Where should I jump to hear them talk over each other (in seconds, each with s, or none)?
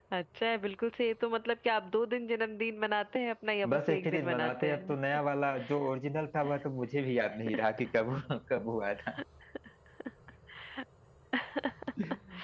3.7 s